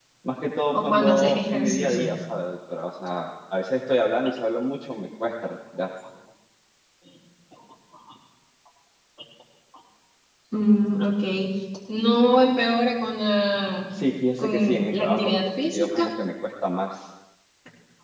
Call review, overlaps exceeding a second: present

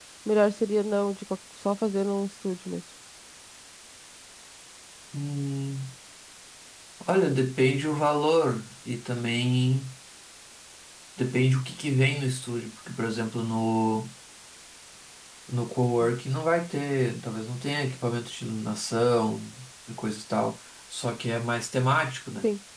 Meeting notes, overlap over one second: none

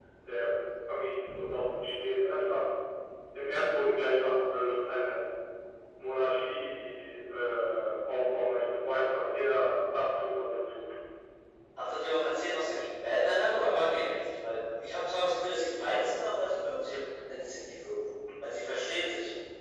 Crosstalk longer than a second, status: none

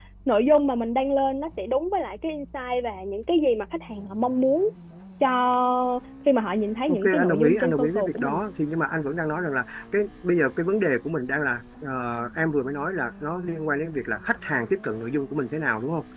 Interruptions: present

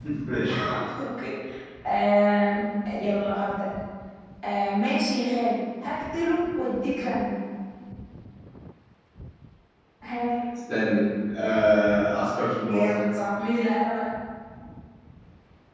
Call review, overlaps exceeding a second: none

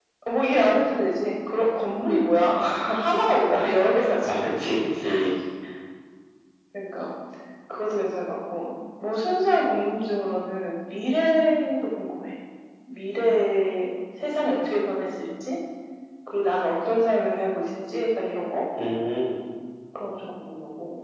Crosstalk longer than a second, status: none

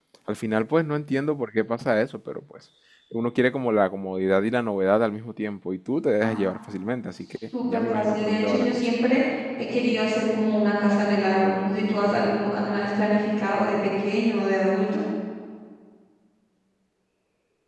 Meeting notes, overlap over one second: present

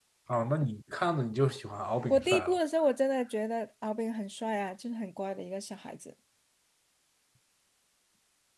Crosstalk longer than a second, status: none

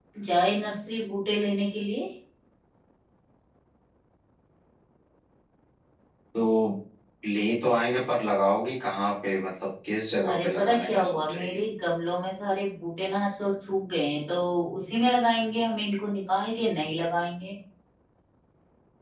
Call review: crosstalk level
present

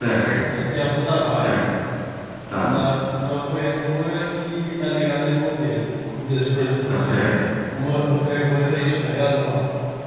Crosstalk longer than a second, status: none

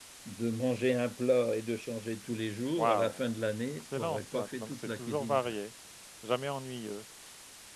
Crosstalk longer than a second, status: present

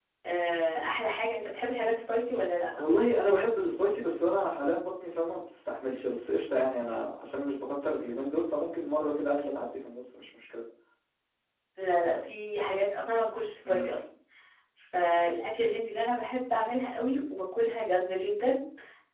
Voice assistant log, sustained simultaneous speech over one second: none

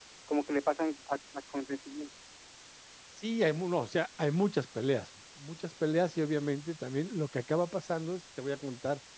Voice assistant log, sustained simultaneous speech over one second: none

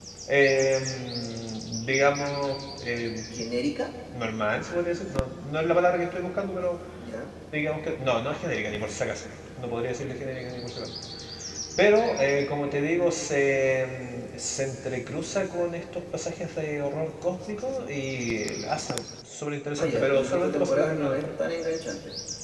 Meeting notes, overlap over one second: present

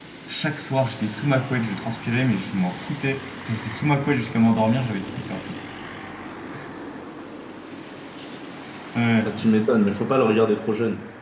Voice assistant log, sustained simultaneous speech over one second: none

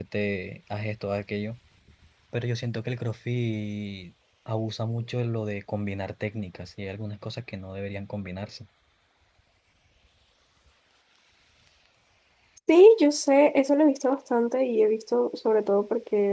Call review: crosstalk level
none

